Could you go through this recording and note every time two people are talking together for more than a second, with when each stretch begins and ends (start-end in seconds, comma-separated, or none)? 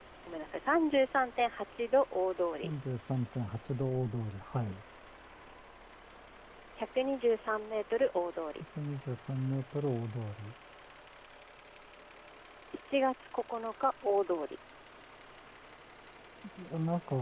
none